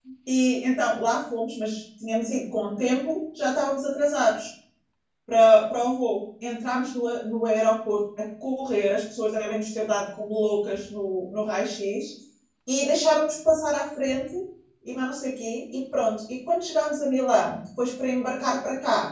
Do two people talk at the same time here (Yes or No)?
No